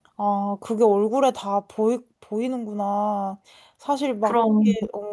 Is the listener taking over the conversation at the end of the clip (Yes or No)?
No